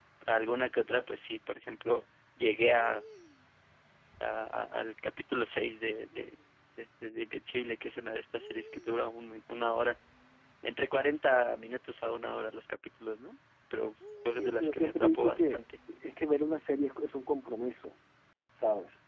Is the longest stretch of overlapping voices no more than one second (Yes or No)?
No